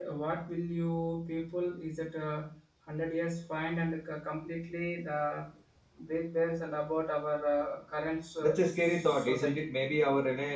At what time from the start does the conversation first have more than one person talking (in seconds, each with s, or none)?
8.4 s